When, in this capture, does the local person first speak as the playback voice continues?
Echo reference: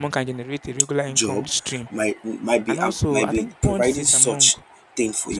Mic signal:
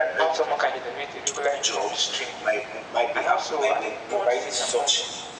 none

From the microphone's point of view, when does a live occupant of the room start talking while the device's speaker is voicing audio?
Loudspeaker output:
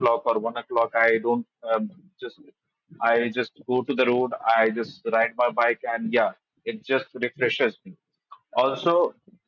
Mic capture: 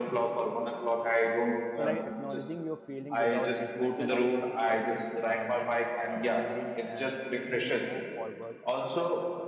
1.8 s

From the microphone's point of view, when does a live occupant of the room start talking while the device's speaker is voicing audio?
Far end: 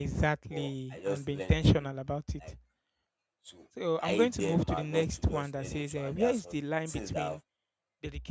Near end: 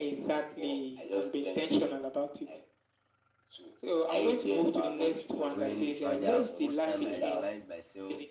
5.5 s

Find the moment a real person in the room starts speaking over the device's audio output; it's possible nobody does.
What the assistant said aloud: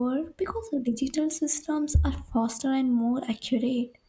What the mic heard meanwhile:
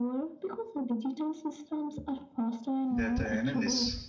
2.9 s

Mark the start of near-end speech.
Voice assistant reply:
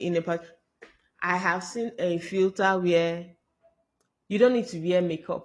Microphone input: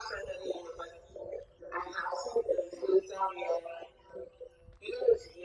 none

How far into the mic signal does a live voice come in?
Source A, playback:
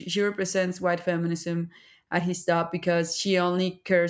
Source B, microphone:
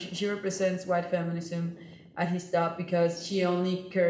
none

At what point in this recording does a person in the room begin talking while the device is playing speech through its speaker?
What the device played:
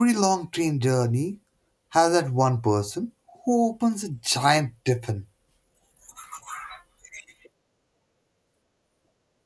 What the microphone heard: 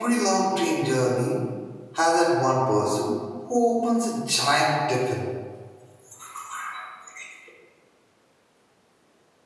none

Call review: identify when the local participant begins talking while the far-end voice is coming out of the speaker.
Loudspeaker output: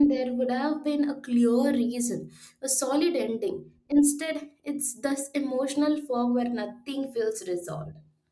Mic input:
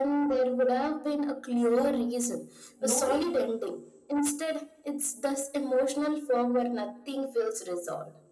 2.8 s

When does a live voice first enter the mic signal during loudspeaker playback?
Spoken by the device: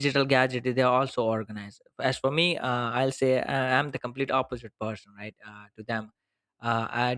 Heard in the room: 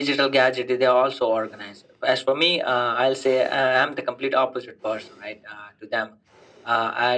none

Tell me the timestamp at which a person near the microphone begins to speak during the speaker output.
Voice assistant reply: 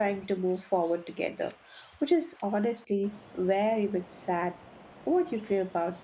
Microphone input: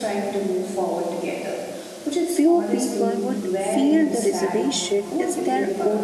2.3 s

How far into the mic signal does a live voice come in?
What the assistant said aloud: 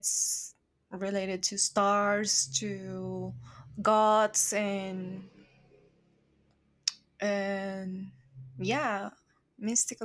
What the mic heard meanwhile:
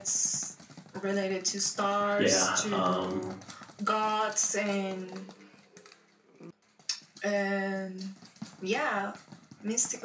2.1 s

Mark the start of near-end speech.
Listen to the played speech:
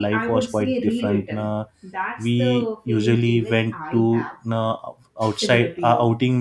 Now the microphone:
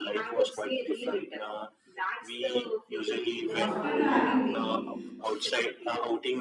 3.5 s

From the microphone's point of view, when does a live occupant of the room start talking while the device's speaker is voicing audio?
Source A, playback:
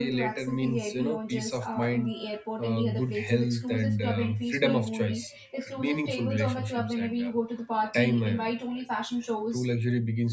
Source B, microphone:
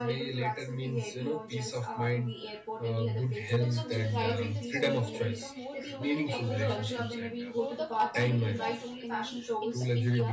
3.6 s

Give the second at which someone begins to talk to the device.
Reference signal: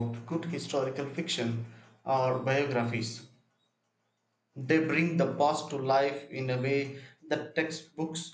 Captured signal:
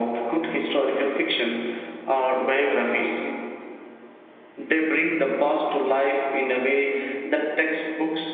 none

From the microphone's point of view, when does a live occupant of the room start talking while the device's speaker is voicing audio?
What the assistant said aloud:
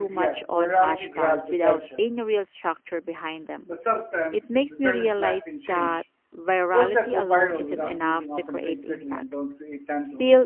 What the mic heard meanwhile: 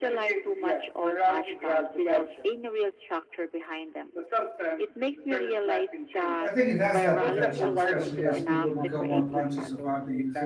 6.4 s

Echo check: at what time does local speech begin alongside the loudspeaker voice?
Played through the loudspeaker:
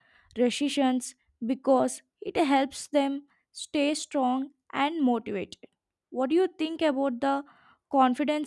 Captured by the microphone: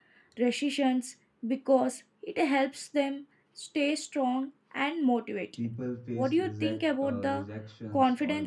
5.5 s

